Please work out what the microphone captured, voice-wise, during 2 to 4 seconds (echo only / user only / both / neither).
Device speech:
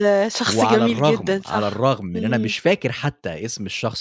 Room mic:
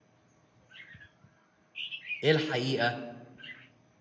user only